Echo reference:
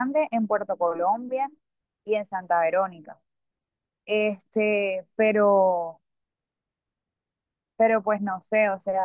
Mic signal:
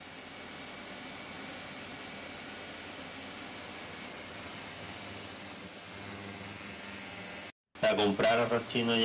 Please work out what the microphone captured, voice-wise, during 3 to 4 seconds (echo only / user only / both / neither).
neither